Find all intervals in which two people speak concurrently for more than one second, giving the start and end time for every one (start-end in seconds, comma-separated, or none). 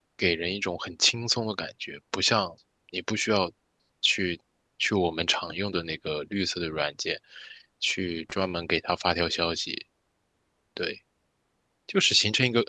none